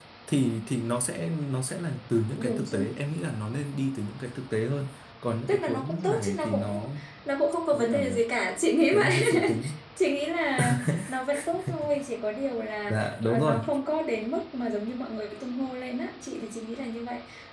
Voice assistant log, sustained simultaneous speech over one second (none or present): present